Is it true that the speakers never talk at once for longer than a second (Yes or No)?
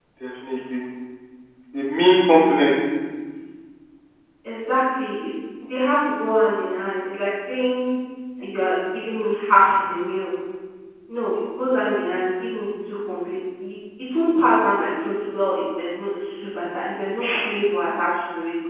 Yes